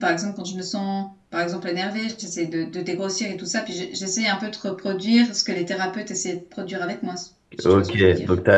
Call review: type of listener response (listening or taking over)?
taking over